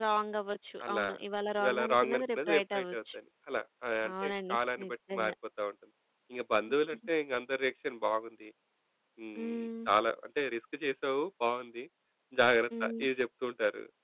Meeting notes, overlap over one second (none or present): present